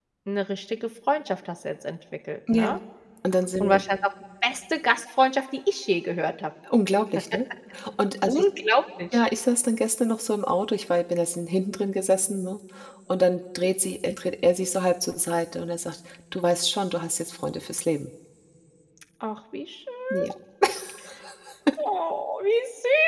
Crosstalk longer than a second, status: none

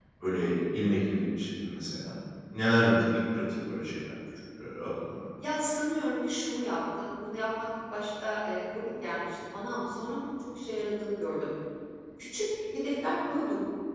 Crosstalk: none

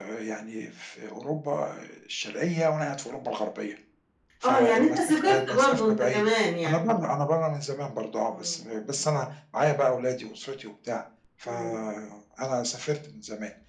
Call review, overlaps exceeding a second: present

